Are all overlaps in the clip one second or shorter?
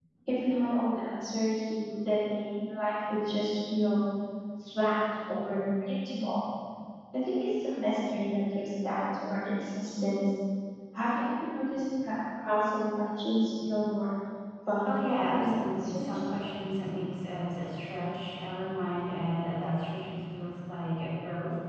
No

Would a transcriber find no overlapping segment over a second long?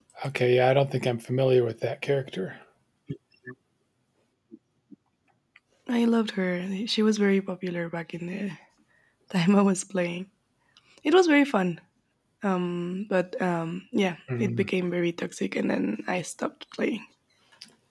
Yes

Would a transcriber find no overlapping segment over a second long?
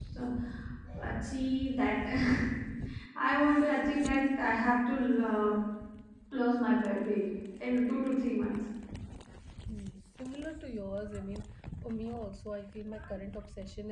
Yes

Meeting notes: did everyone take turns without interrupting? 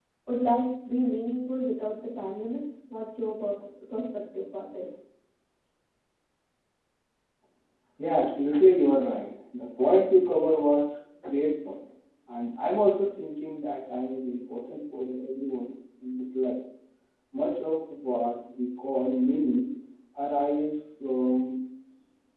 Yes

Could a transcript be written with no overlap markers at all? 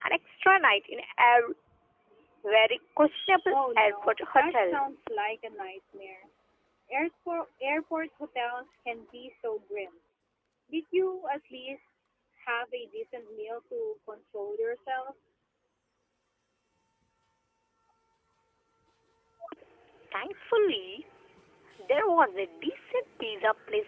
No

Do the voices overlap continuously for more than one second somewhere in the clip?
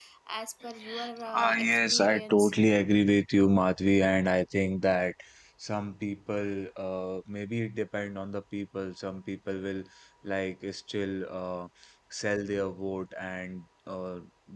Yes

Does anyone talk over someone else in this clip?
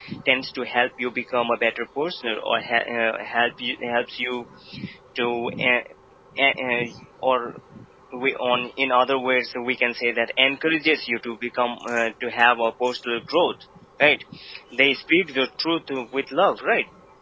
No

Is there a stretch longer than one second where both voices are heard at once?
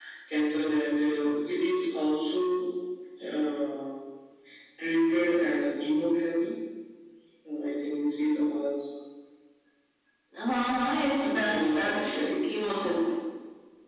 Yes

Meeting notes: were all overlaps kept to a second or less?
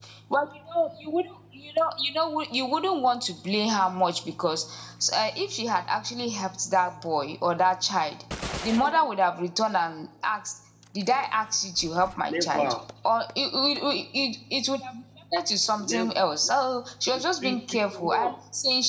No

